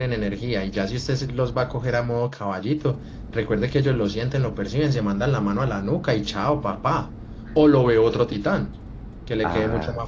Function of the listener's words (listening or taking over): listening